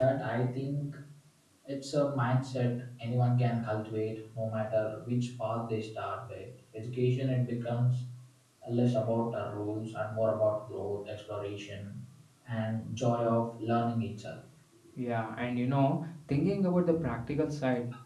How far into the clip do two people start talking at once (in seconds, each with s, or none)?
none